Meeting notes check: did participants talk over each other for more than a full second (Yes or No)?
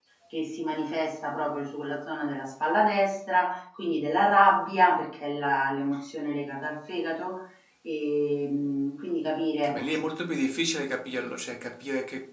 No